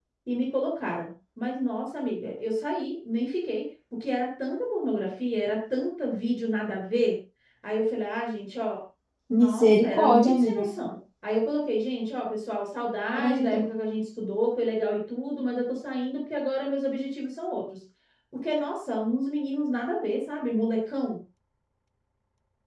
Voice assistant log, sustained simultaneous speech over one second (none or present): present